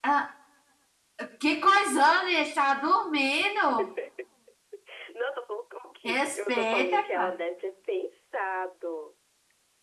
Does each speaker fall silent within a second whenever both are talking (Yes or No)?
No